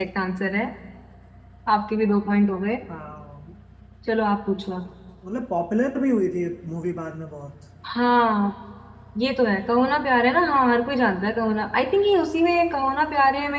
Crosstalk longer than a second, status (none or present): none